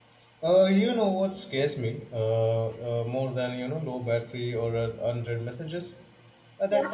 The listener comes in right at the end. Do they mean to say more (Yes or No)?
No